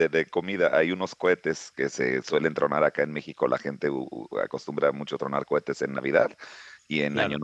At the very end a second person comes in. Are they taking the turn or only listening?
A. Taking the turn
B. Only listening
B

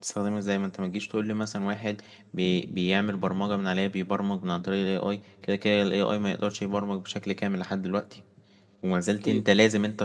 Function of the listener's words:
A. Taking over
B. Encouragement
B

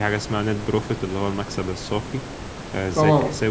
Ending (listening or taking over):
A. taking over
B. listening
B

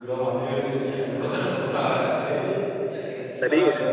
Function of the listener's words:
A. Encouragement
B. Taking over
B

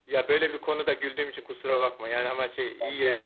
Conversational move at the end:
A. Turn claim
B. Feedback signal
B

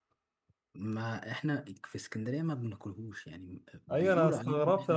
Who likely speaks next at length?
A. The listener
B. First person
A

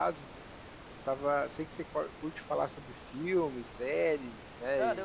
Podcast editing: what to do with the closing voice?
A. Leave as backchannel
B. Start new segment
B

